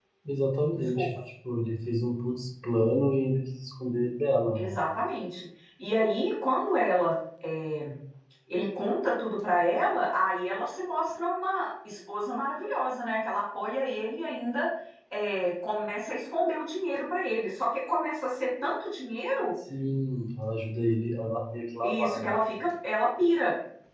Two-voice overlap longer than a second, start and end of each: none

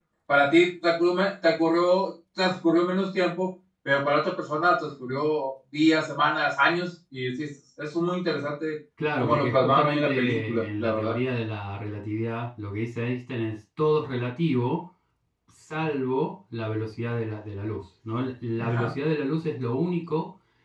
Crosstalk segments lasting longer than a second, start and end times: 9.2-11.2

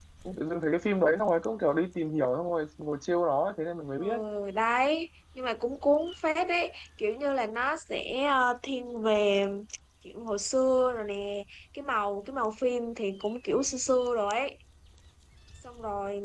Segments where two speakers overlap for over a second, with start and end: none

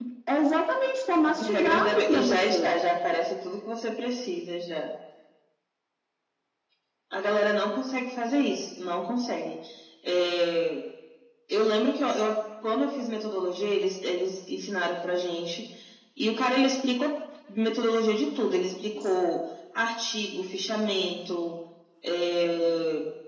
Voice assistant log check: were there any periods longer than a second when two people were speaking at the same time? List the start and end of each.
1.3-2.8

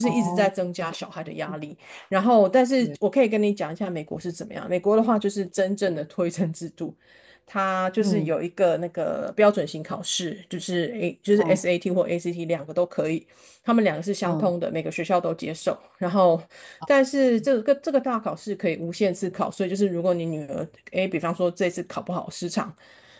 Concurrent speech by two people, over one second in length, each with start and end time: none

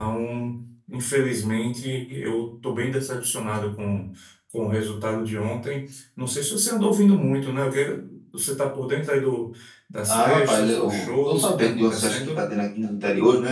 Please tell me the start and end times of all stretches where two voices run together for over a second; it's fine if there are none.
10.1-12.2

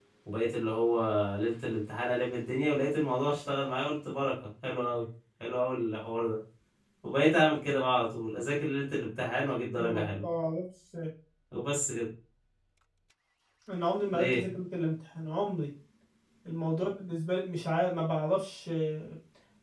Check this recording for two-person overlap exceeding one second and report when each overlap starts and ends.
none

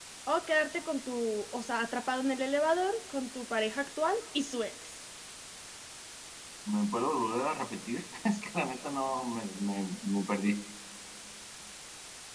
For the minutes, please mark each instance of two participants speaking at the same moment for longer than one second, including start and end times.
none

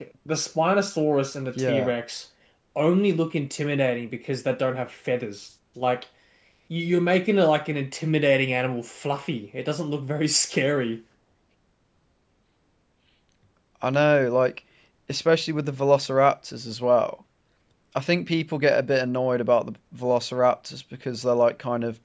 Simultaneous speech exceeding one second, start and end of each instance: none

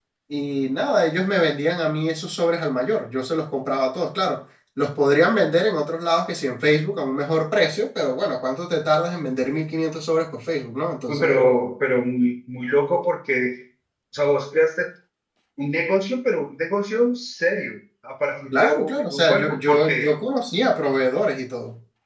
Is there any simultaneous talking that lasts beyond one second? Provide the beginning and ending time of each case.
18.5-20.0

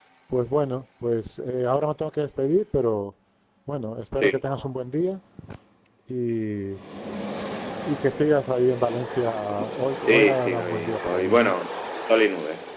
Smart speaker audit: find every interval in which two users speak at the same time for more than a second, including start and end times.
10.0-11.5

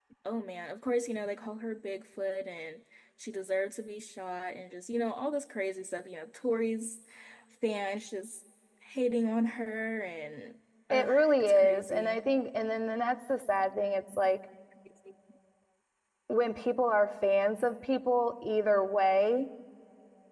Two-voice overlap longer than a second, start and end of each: 10.9-12.2

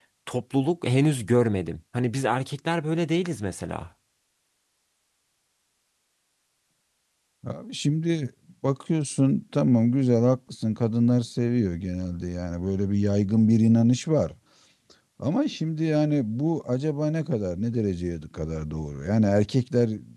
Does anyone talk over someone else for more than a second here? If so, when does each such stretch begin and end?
none

